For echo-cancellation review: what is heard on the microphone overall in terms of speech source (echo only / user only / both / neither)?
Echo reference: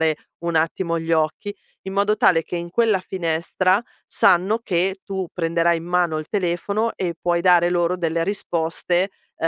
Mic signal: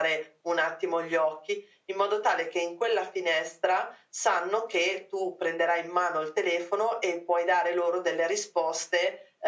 echo only